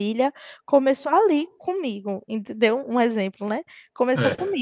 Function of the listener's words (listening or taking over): listening